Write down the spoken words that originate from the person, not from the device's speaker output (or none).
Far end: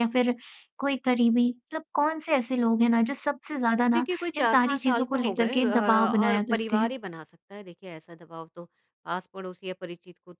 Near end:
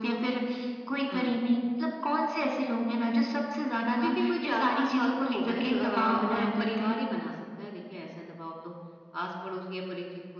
हुँ।